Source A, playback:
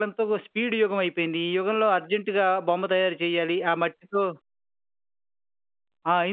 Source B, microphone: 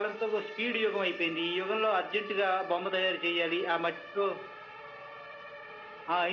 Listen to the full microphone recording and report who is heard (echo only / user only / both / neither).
echo only